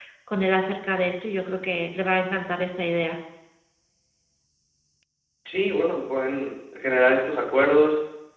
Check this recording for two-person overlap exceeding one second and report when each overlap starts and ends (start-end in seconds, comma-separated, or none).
none